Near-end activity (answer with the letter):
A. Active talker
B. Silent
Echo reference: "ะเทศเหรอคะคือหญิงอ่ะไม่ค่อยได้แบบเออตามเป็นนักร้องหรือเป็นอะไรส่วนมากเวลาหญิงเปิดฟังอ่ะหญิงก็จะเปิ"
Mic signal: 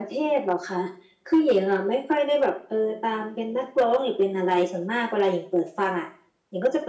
B